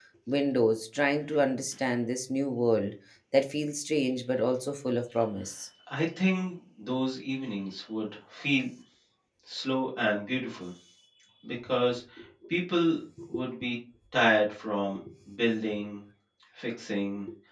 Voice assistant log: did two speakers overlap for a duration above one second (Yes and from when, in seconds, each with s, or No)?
No